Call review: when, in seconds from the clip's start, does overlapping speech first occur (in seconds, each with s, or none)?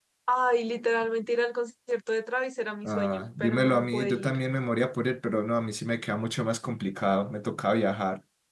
2.8 s